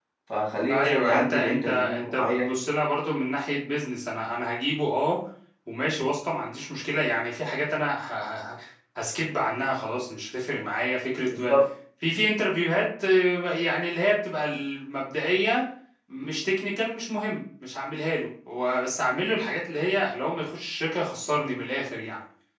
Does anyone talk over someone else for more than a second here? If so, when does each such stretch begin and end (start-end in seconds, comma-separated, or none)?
0.7-2.6